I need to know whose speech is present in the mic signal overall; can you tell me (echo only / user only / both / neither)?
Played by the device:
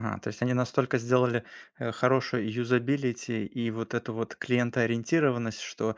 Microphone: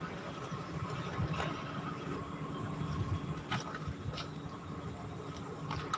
neither